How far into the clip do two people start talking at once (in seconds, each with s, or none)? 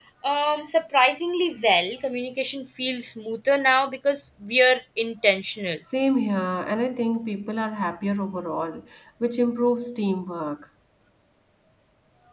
none